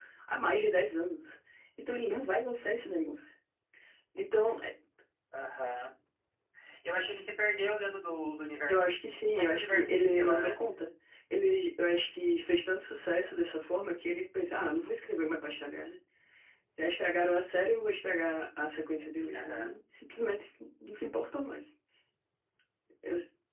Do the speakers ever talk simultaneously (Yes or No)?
Yes